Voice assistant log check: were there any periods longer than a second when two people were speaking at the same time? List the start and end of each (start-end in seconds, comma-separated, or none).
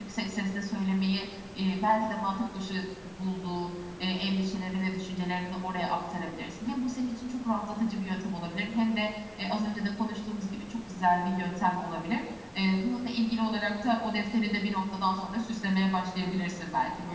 none